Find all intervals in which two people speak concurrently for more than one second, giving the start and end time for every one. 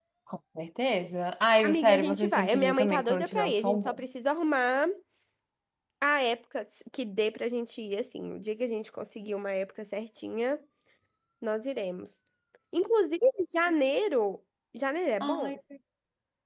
1.6-3.9

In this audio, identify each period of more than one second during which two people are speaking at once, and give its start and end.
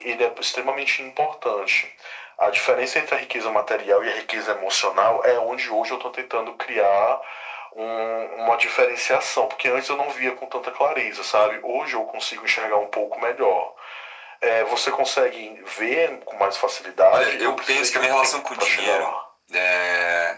17.1-19.2

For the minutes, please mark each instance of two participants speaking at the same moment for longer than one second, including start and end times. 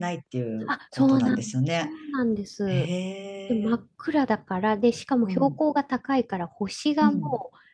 0.7-1.9

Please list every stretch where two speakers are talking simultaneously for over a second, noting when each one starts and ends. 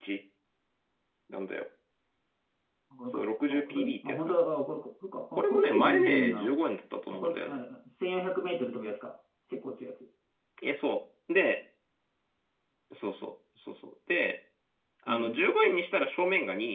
3.1-4.4, 5.3-6.5

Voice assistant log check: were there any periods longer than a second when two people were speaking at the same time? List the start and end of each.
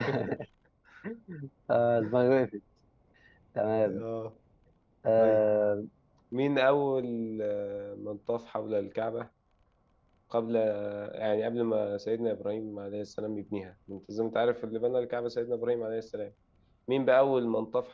none

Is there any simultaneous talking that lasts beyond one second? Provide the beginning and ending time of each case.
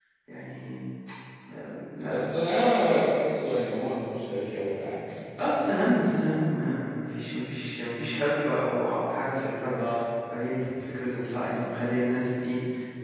none

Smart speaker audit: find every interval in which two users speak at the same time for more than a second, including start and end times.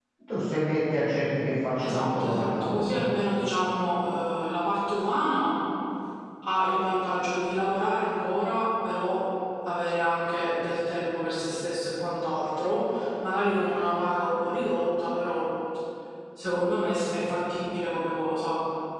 1.8-3.1

